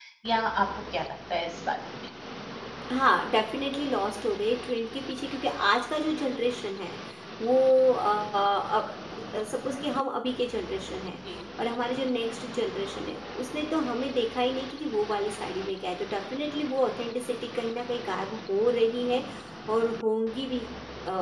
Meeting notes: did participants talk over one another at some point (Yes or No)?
No